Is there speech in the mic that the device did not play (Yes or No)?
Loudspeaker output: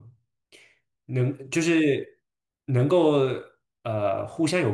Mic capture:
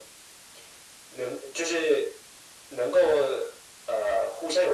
No